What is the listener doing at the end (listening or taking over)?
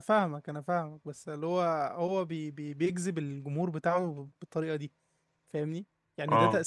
listening